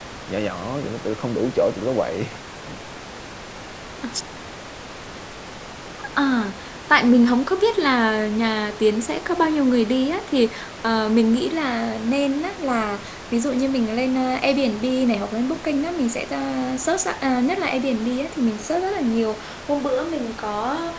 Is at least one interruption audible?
No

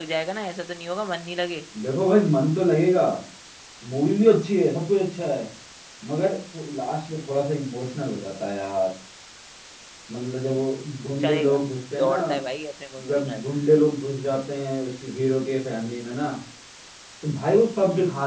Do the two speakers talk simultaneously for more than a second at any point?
No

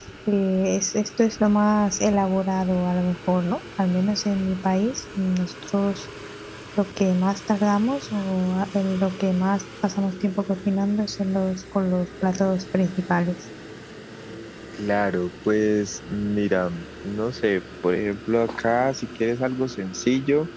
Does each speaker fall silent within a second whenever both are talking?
Yes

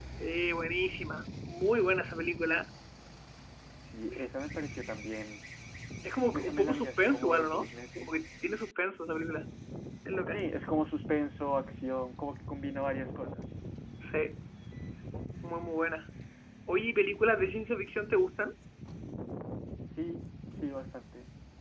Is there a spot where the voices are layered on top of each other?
Yes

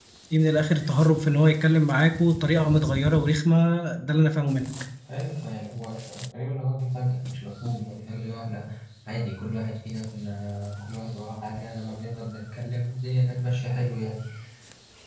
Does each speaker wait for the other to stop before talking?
Yes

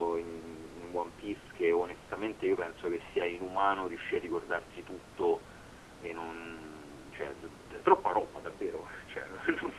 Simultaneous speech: No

